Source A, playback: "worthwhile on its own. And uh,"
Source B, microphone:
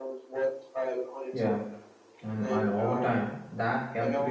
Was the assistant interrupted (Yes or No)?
Yes